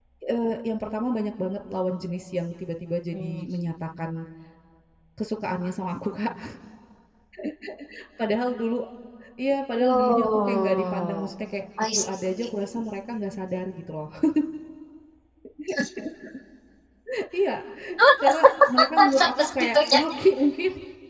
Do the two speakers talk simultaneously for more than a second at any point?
Yes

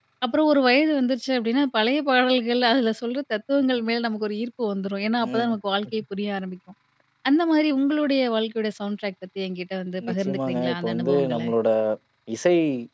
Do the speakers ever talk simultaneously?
Yes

